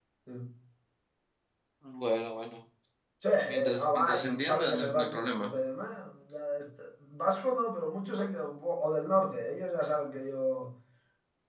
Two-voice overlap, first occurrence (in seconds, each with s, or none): 3.5 s